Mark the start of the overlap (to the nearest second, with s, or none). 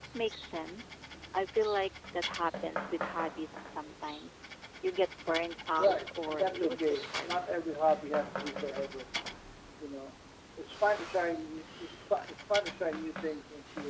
6 s